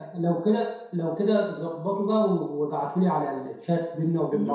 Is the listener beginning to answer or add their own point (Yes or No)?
Yes